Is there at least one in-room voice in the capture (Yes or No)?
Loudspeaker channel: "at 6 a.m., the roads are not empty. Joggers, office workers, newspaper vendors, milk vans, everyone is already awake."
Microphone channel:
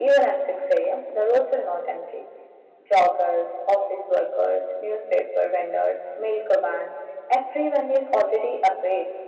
No